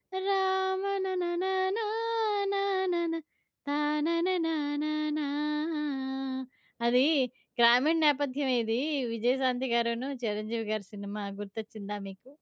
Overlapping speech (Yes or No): No